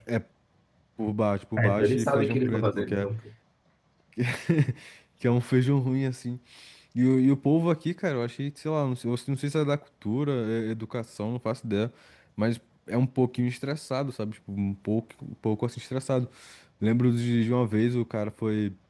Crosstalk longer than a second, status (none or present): present